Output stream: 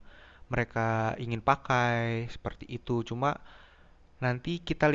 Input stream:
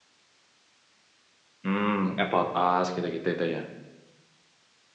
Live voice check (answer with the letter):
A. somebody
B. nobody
A